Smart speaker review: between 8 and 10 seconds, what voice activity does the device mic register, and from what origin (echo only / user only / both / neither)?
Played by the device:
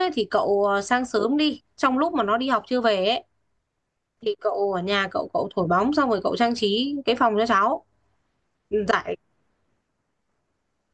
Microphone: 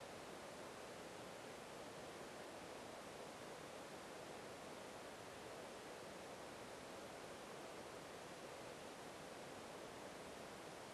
neither